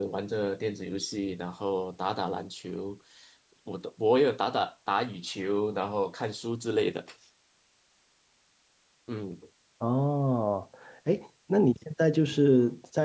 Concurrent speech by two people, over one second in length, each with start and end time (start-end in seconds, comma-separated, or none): none